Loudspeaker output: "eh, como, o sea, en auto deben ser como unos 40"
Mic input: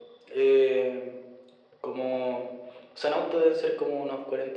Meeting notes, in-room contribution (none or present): none